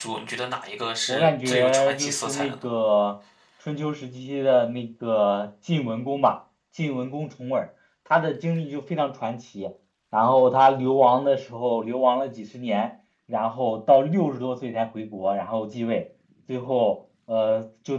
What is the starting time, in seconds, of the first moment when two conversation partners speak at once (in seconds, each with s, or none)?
1.1 s